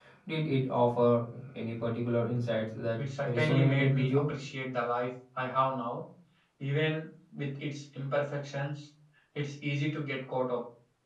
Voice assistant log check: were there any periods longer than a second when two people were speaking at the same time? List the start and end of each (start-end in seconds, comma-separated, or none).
3.0-4.2